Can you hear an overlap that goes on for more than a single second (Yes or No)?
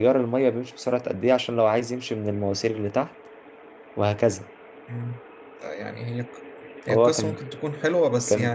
No